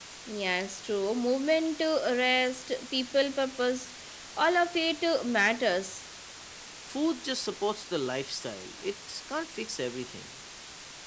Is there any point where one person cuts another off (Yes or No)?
No